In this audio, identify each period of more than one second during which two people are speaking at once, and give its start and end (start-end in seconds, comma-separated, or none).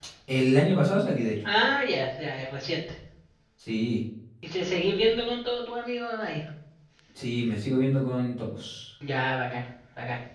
none